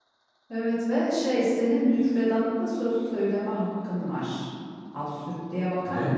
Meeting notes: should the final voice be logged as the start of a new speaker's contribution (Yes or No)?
Yes